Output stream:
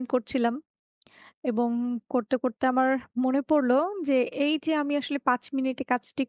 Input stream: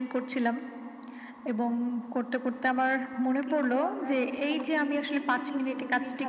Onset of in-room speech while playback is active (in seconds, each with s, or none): 3.5 s